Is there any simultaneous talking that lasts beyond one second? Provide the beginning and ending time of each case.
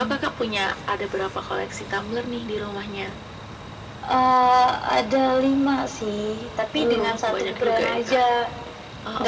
6.7-8.2

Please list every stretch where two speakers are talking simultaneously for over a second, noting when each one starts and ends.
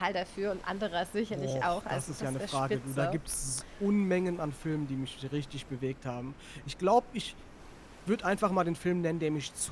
1.3-3.2

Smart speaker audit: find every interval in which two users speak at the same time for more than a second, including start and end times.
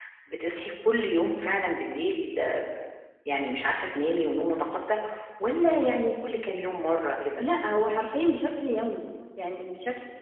none

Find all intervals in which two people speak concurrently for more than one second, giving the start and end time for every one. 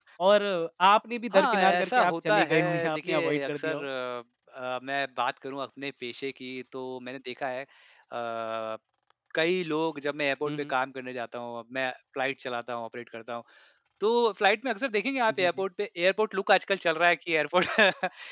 1.3-3.9

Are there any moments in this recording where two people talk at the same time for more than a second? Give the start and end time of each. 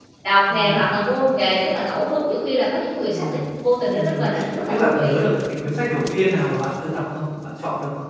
none

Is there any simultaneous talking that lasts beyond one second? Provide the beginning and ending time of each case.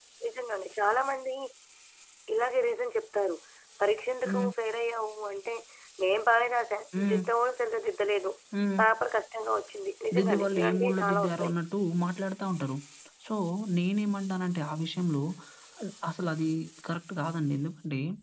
10.2-11.5

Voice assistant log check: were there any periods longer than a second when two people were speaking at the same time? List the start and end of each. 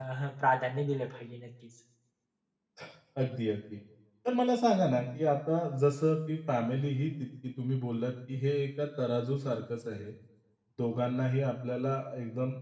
none

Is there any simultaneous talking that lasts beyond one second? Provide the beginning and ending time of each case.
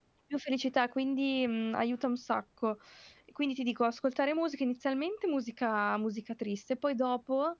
none

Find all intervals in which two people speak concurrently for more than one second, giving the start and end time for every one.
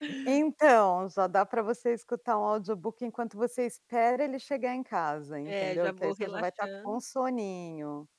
5.5-7.0

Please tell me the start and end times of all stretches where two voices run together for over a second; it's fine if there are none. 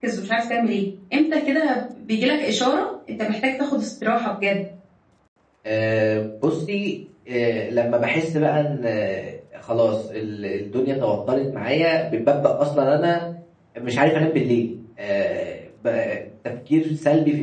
none

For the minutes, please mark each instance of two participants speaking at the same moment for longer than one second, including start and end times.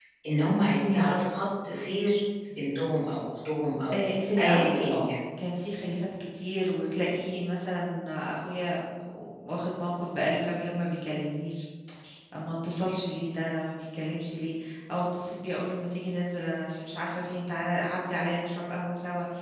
3.9-5.1

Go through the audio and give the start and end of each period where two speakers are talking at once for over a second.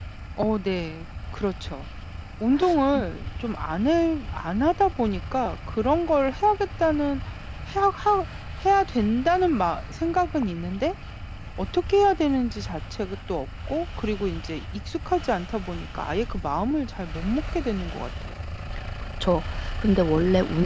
none

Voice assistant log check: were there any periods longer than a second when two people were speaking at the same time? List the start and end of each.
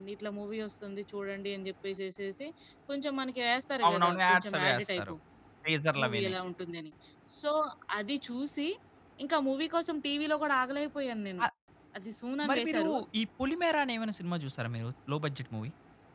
3.9-5.1

